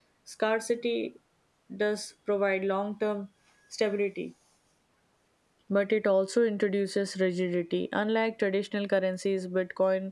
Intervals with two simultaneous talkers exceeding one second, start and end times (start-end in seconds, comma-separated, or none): none